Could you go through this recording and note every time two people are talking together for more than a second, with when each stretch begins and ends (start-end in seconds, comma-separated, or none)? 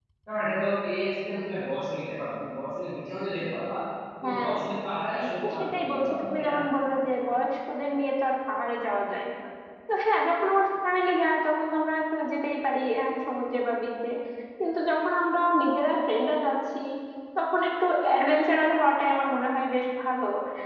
5.1-6.5